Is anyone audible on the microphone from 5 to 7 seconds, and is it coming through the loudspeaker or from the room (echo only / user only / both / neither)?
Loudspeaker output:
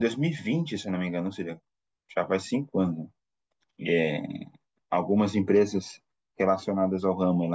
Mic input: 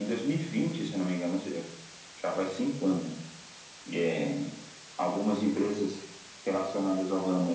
echo only